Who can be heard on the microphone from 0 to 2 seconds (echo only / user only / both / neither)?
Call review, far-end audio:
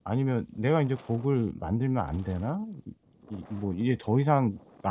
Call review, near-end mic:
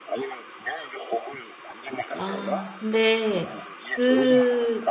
echo only